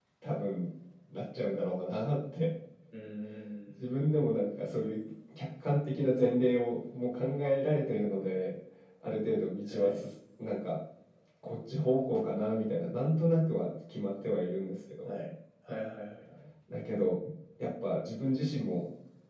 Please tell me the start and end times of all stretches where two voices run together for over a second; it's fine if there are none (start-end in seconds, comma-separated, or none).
none